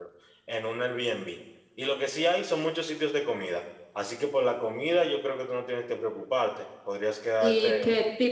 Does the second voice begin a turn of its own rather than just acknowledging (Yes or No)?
Yes